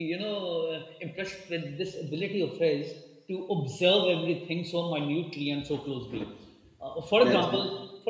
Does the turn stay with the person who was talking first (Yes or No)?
Yes